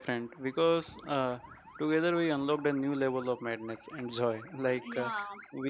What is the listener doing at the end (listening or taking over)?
listening